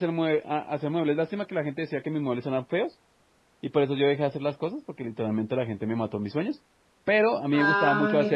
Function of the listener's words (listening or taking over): listening